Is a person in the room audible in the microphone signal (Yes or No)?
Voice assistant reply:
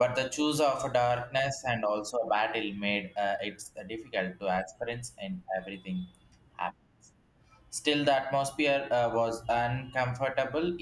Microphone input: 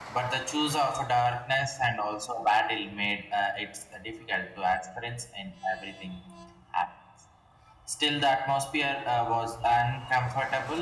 No